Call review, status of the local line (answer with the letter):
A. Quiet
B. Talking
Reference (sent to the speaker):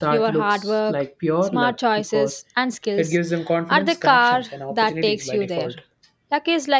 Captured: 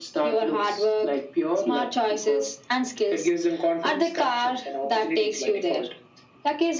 A